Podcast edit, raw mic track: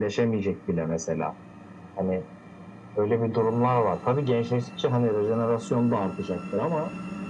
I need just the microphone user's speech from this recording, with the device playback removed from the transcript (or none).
none